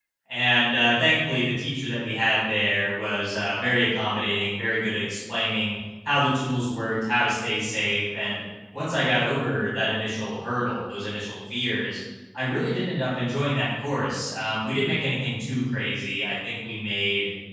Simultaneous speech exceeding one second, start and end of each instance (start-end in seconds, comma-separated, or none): none